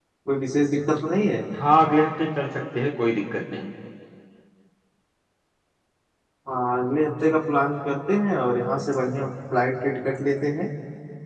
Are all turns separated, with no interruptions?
Yes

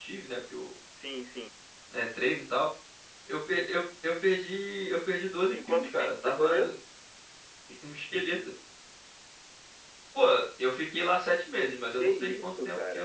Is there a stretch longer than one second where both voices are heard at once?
Yes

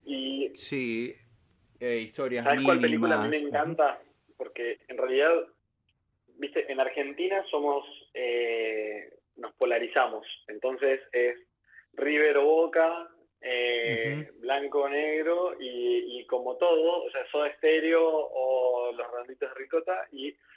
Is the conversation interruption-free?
No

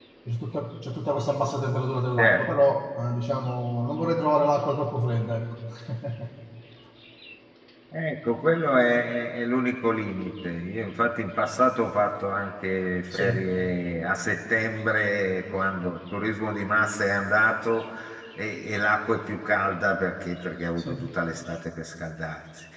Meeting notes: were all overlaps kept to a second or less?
Yes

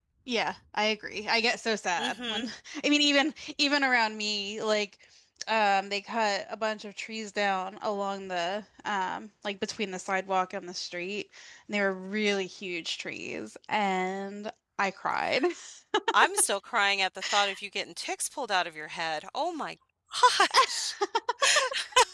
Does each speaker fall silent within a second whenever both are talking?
Yes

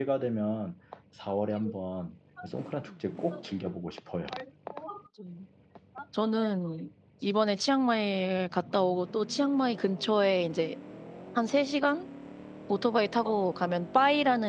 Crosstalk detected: No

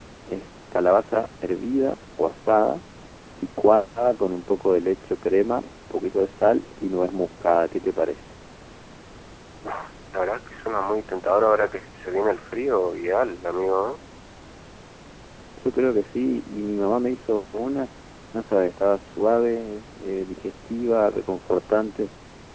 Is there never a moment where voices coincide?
Yes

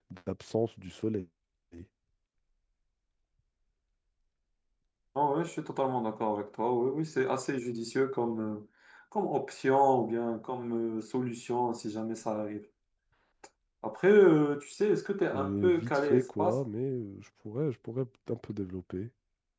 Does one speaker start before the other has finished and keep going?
Yes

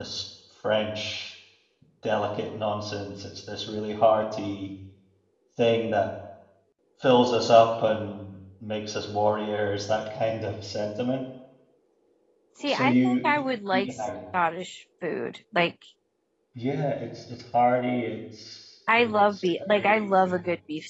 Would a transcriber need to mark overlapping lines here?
Yes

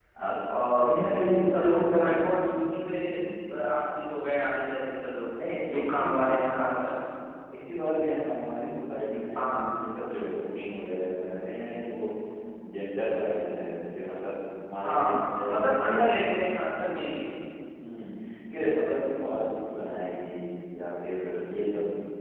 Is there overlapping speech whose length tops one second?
Yes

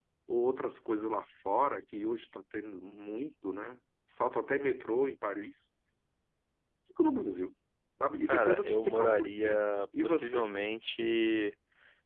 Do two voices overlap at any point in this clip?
Yes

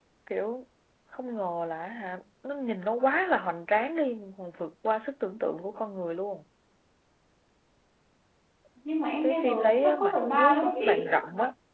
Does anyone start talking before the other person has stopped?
Yes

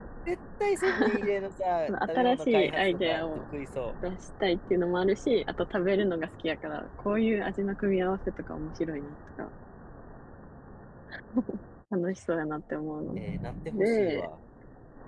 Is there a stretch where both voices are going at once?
Yes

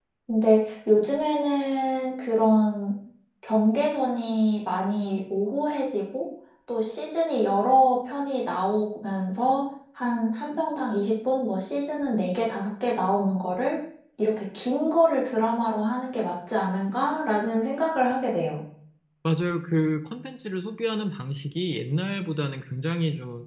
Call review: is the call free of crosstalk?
Yes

